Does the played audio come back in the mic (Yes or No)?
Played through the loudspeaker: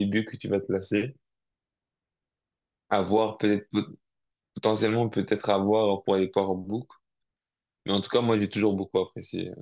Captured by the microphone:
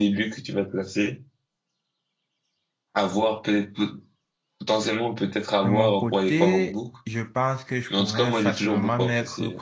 Yes